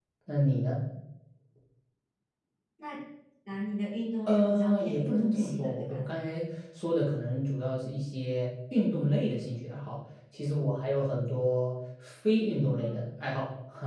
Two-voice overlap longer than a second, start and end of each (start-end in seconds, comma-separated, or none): 4.3-6.0